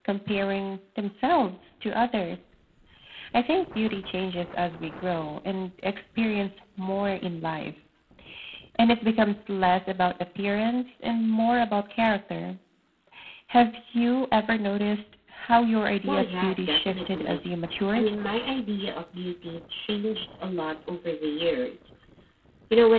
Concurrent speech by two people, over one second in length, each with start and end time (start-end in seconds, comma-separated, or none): 16.1-17.4